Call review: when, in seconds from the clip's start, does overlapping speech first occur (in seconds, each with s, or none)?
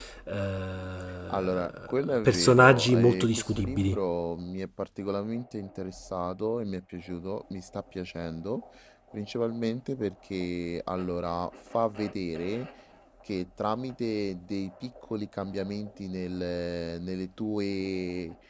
1.3 s